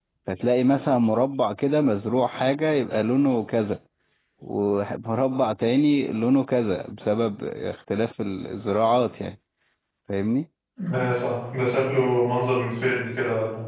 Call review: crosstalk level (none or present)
none